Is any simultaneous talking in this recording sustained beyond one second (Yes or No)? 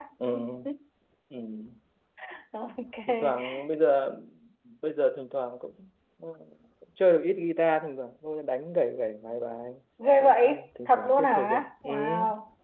Yes